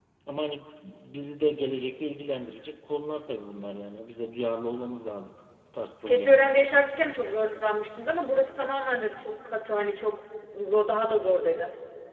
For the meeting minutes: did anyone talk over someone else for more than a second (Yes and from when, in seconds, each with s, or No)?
No